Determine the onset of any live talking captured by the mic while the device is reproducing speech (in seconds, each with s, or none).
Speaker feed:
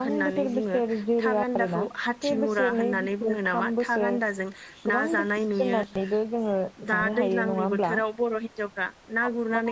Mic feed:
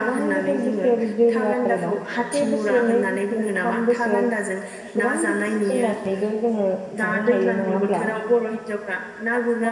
none